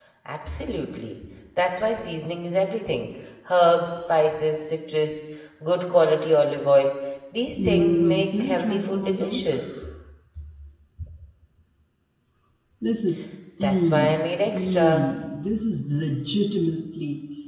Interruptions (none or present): present